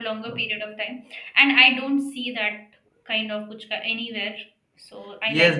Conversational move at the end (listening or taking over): taking over